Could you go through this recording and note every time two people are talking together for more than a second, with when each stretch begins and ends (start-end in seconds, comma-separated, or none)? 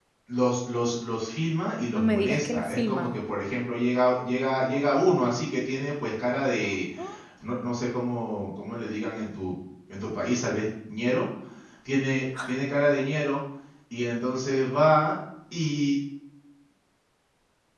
1.9-3.4